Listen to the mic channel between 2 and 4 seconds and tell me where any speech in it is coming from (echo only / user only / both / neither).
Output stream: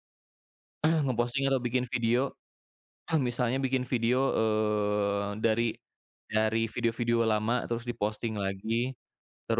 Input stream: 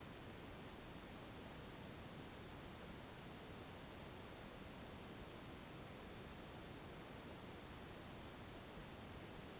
neither